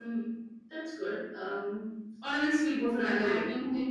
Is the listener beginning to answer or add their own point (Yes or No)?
Yes